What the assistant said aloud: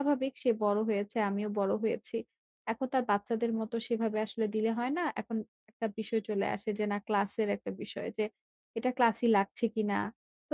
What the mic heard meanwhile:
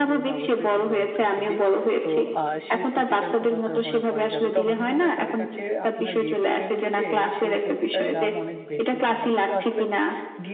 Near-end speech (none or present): present